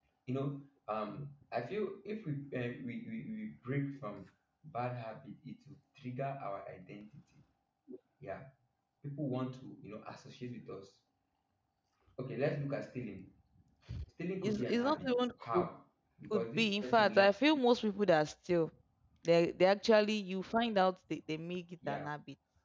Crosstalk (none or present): present